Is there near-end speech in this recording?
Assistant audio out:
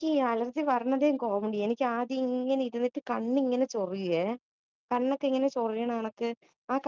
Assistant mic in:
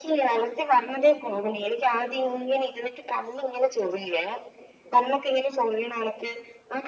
No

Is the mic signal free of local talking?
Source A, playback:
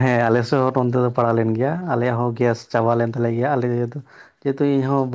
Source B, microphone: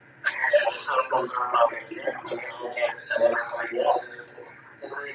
Yes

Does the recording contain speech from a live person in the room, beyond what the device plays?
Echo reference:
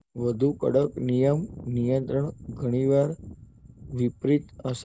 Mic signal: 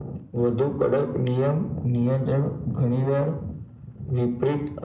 No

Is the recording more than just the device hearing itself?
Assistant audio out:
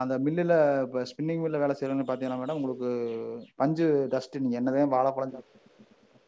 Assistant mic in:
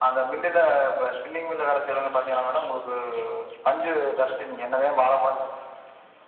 No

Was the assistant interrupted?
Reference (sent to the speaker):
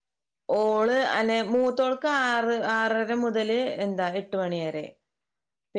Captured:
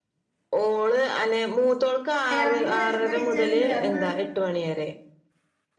Yes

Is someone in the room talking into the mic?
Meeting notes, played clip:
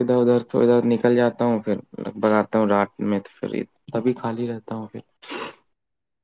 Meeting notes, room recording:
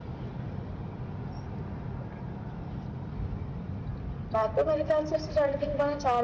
Yes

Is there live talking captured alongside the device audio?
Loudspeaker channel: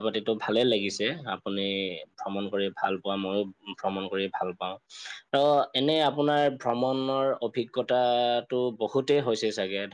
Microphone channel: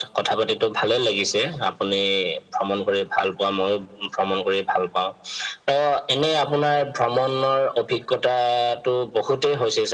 No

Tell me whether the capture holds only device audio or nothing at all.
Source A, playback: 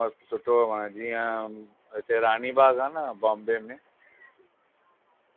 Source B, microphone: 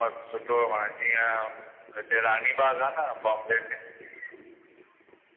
Yes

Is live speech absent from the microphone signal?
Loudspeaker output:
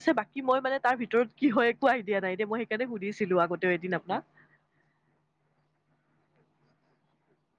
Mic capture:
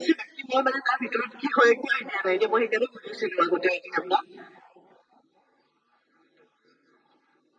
Yes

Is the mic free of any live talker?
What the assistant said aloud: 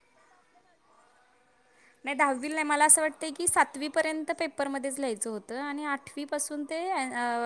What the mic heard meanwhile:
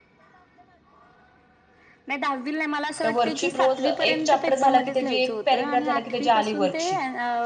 No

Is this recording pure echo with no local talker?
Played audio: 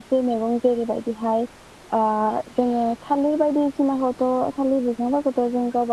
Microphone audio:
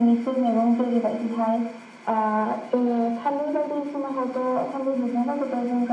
Yes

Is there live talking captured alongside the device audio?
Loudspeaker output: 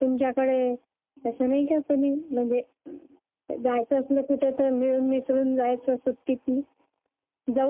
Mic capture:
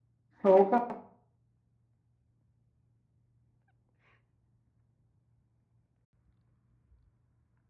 Yes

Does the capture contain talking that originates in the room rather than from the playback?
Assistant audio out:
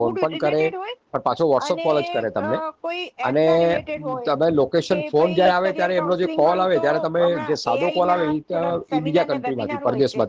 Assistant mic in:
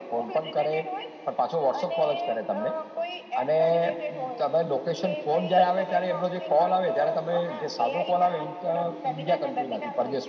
No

